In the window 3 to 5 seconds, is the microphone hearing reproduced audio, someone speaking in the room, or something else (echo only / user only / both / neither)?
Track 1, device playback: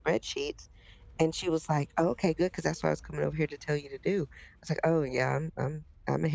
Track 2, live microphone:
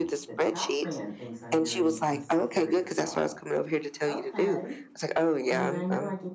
both